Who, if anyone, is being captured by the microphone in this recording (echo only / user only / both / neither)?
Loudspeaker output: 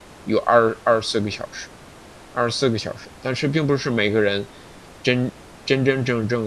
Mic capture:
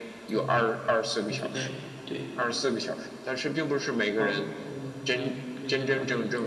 both